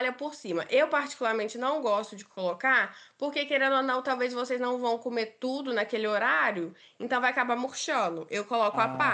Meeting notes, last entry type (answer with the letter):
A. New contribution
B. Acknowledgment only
A